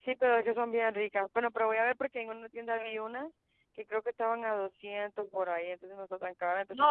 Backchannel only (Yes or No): No